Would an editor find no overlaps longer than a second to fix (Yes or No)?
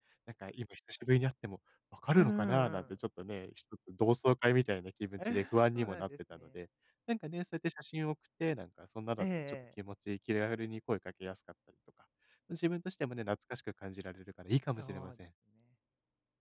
No